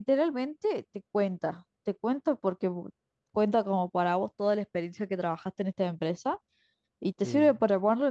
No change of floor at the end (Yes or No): Yes